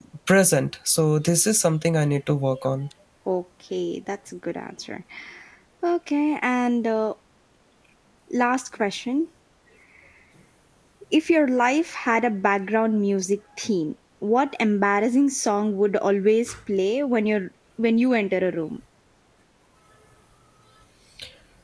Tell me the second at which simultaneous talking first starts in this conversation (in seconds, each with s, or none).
none